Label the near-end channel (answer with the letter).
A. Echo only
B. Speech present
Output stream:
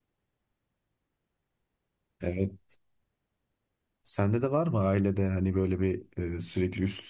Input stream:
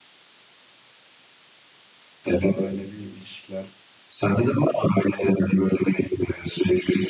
B